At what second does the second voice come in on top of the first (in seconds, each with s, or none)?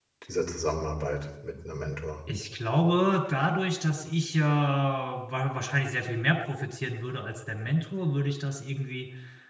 none